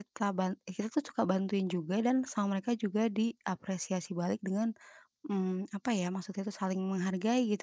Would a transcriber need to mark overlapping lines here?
No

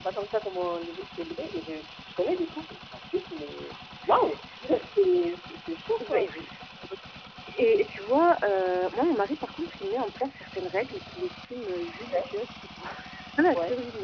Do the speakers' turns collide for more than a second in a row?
No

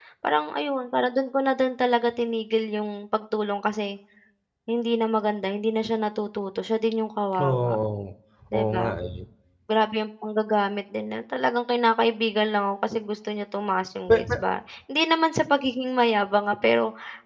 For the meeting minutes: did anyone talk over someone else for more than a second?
No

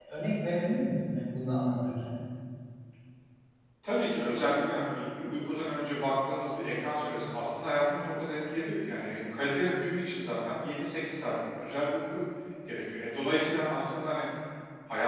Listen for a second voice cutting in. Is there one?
No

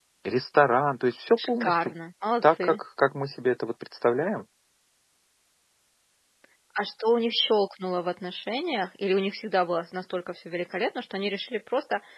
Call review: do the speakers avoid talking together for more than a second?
Yes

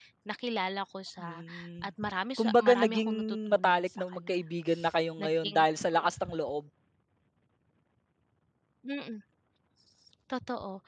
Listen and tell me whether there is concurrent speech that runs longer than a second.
Yes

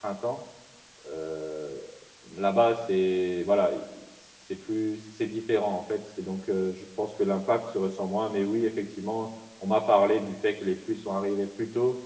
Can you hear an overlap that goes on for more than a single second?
No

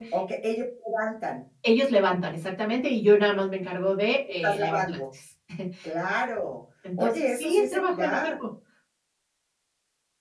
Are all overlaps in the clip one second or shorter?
No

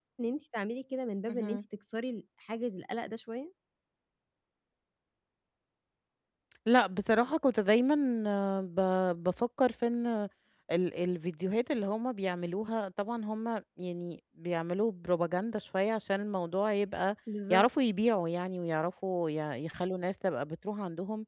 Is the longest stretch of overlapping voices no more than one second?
Yes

